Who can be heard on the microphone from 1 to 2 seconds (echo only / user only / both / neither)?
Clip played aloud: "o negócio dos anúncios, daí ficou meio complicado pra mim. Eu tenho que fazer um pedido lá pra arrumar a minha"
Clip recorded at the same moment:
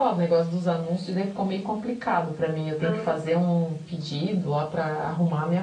echo only